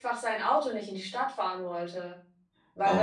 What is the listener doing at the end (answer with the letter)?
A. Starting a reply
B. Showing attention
A